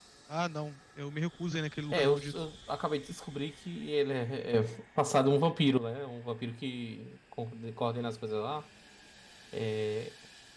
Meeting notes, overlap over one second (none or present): none